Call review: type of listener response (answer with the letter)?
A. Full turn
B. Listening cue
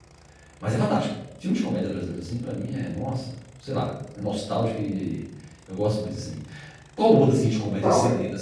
B